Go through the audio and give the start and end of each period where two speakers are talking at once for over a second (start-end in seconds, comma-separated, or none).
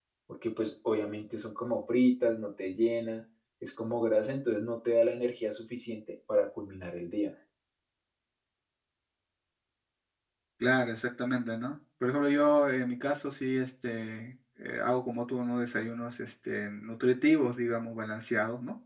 none